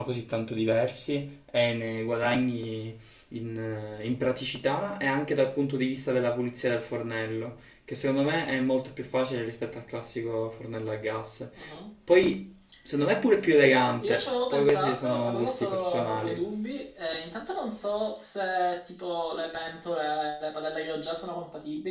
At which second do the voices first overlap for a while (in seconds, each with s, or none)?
14.0 s